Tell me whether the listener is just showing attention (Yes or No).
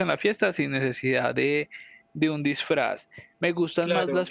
Yes